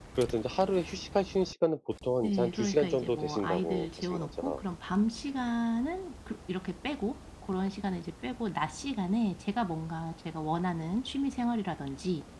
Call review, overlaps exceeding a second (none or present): present